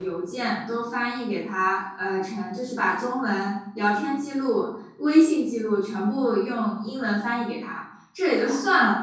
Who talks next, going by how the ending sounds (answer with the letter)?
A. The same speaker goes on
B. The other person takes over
A